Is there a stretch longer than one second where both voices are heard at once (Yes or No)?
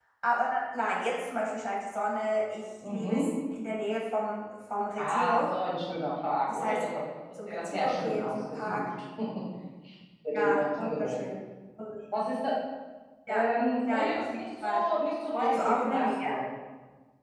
Yes